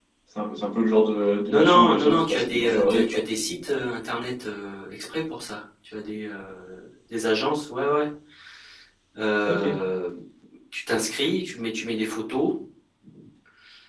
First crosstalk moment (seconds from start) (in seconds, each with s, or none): 1.5 s